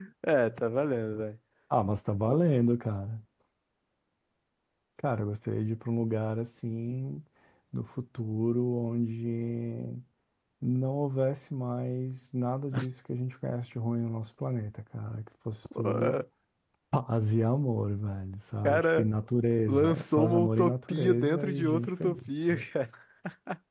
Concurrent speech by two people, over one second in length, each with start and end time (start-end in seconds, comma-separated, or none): 19.7-22.3